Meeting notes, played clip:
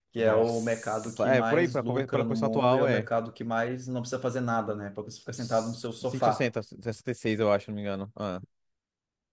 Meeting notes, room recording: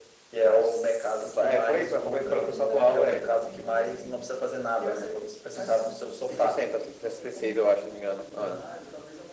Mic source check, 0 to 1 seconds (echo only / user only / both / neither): echo only